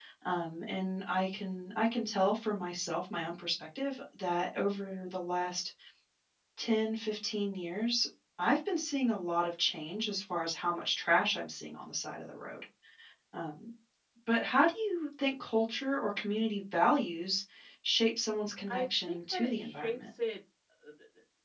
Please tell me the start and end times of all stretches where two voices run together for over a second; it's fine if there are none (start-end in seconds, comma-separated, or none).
18.7-20.1